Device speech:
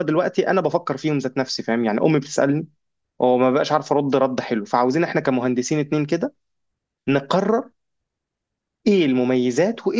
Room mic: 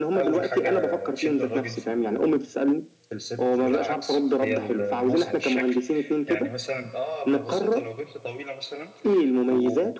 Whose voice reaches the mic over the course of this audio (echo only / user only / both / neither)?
both